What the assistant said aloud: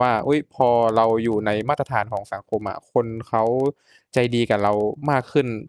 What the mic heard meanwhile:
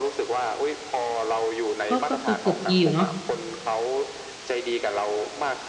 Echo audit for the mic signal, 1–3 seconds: both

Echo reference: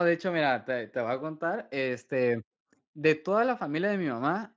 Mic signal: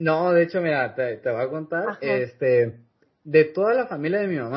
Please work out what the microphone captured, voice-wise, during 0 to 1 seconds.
echo only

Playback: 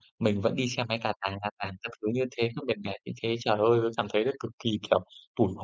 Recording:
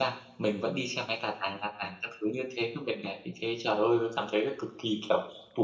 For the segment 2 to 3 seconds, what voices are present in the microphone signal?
echo only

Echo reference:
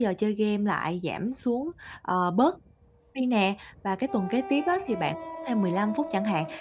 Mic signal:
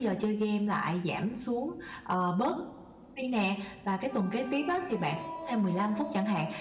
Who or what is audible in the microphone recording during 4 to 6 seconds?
echo only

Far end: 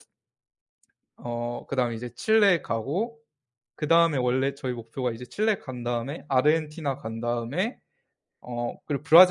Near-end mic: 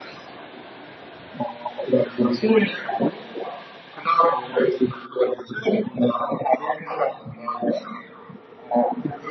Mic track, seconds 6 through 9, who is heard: echo only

